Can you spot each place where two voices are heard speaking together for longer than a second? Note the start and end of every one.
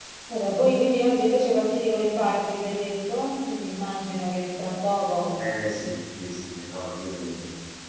none

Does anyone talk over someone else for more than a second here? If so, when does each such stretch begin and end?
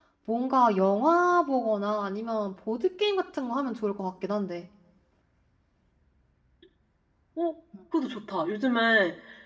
none

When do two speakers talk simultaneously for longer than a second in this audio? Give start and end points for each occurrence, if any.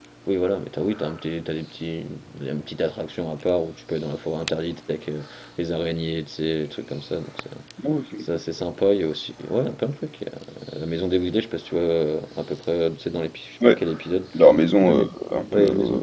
none

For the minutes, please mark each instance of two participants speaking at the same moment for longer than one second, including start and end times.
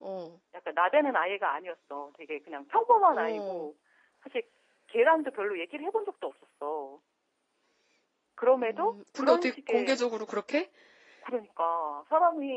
8.6-10.0

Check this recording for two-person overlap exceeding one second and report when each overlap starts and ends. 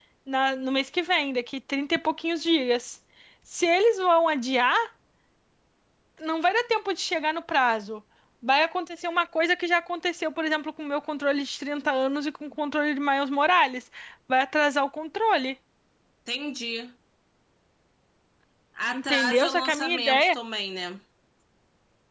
18.9-20.4

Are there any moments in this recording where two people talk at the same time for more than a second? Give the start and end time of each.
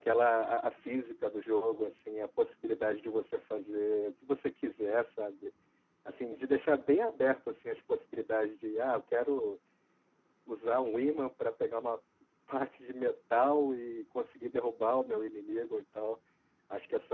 none

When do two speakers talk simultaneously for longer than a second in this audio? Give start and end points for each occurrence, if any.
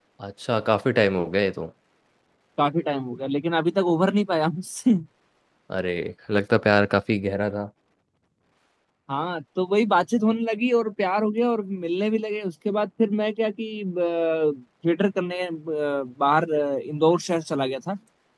none

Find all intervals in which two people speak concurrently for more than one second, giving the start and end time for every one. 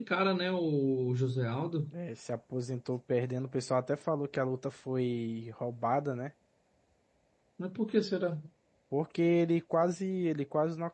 none

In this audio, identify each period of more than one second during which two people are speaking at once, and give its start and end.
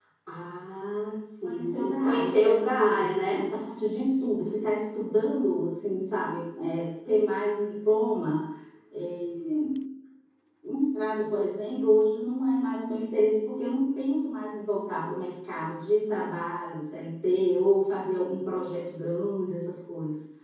1.4-2.9

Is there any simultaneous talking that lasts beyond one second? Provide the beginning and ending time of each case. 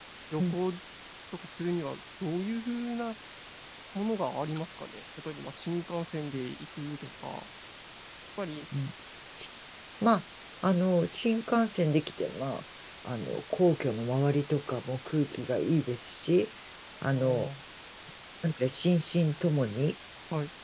none

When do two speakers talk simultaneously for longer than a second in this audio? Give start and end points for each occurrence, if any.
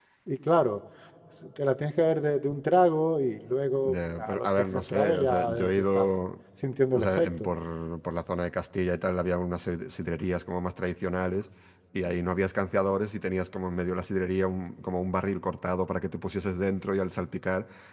3.9-6.1

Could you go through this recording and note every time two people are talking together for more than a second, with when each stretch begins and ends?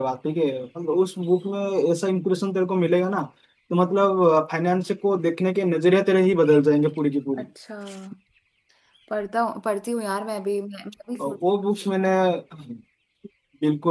none

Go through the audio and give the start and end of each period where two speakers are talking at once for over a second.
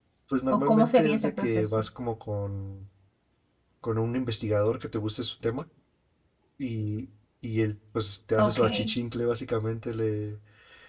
0.5-1.8

